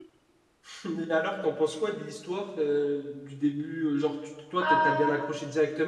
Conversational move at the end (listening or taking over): listening